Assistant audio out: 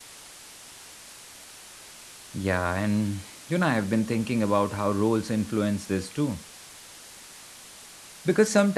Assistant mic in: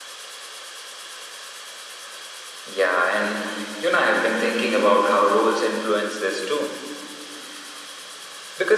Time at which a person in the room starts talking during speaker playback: none

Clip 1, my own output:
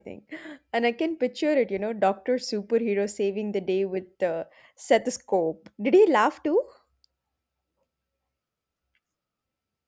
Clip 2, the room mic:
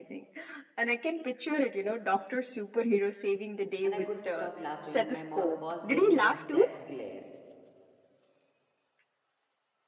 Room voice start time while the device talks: 4 s

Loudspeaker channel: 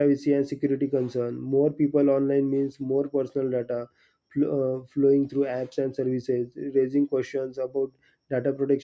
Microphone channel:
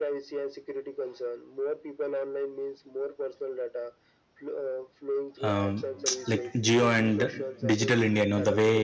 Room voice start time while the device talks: 5 s

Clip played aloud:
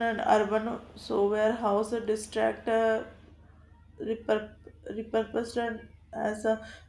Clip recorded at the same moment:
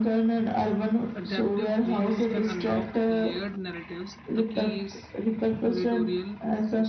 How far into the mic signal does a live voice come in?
1 s

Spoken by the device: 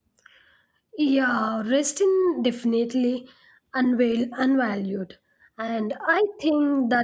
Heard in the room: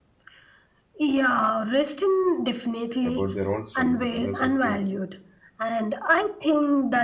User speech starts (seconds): 3 s

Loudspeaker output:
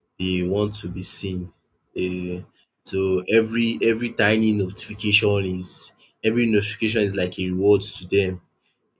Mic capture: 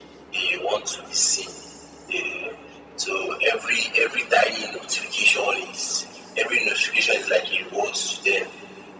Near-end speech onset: none

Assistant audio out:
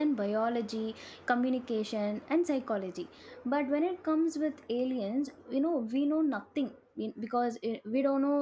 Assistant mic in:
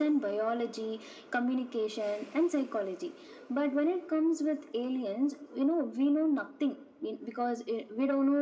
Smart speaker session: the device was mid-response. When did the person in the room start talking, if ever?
none

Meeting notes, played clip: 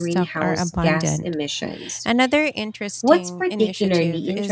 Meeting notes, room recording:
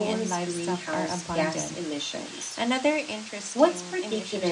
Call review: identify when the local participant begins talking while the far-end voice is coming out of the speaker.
none

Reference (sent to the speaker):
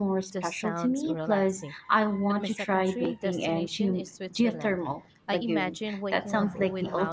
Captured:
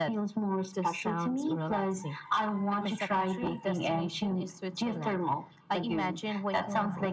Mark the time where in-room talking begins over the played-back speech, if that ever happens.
none

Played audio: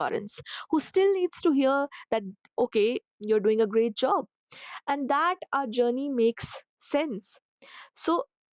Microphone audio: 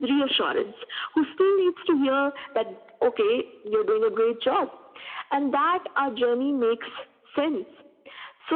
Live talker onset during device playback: none

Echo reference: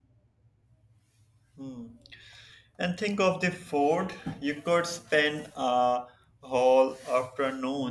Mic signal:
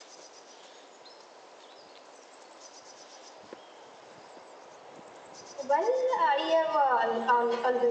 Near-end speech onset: 6 s

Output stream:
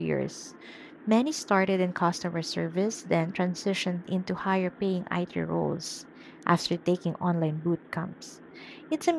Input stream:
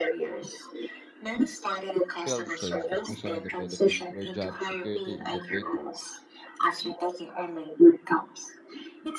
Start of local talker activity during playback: 2 s

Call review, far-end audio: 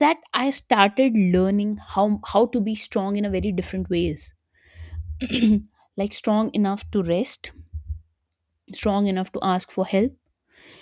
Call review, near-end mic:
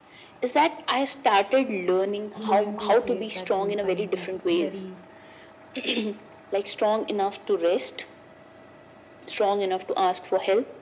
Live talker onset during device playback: 2 s

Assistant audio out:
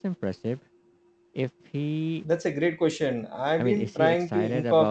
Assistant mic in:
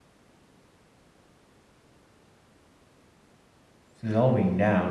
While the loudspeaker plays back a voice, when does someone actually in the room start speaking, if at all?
4 s

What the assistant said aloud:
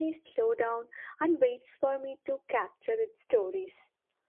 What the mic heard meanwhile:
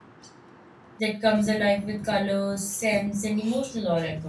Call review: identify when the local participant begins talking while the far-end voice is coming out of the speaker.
1 s

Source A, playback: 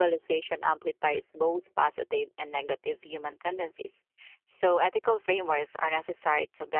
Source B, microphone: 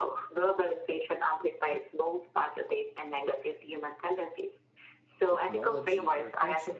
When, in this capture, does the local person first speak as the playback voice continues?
5 s

